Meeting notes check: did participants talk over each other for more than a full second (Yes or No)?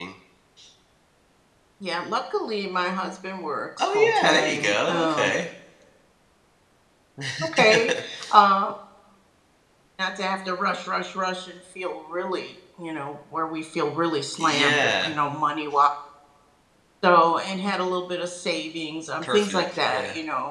Yes